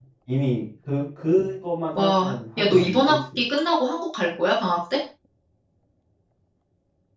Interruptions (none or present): present